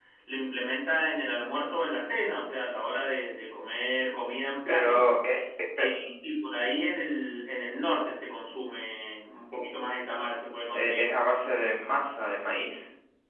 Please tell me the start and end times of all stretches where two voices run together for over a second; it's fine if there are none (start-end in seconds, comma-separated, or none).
none